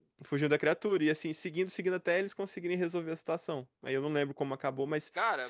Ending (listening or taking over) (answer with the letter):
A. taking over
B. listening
B